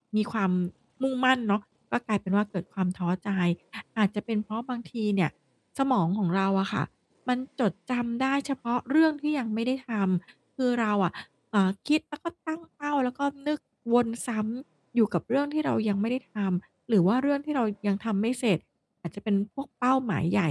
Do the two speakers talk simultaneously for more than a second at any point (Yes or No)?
No